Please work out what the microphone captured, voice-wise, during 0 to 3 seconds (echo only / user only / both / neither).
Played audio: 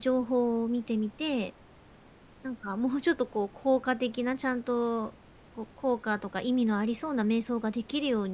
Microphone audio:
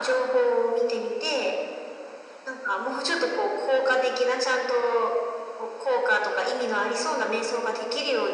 echo only